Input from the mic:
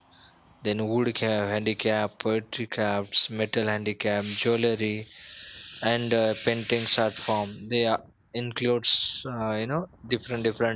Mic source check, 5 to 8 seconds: user only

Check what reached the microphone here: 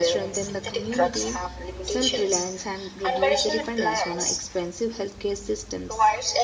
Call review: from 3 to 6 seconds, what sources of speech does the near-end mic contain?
both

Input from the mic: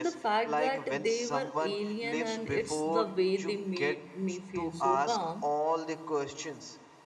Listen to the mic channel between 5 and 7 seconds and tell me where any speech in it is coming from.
both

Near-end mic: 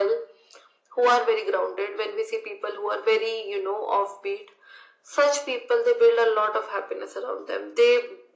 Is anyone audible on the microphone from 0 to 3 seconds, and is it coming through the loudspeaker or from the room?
echo only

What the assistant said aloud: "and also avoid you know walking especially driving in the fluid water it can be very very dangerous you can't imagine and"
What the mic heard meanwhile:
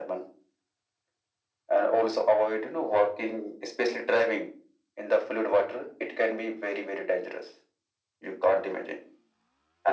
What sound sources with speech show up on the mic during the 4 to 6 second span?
echo only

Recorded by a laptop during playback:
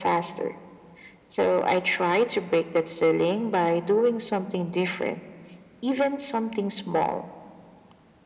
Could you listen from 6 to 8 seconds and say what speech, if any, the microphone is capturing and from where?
echo only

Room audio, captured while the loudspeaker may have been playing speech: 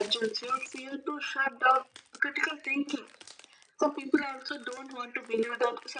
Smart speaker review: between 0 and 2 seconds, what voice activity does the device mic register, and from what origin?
echo only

